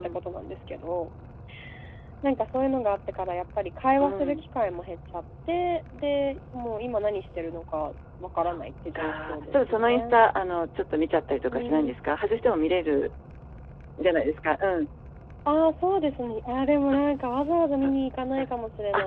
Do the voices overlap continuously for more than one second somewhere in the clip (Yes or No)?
Yes